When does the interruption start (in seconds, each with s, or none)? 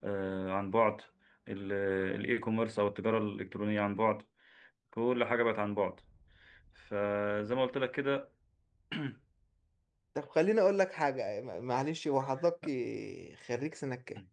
none